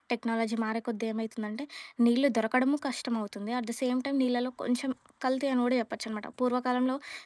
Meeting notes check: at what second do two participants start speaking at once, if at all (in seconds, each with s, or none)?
none